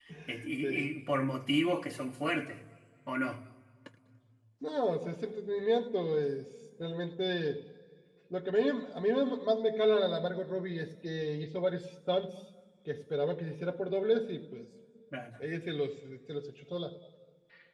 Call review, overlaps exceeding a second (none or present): none